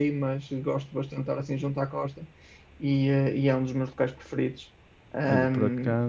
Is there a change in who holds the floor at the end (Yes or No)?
Yes